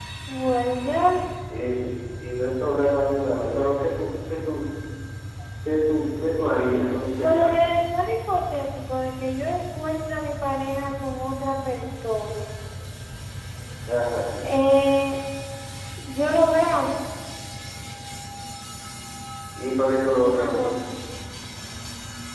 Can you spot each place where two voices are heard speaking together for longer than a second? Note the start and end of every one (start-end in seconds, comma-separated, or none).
none